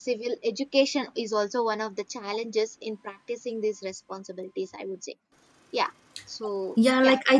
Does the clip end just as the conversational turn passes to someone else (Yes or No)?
Yes